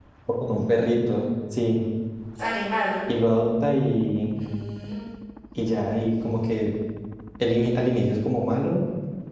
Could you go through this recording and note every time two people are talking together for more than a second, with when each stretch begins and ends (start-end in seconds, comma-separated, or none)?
none